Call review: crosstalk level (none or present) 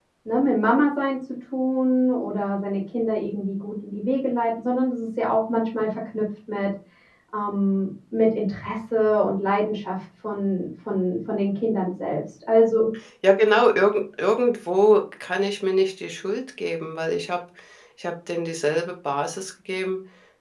none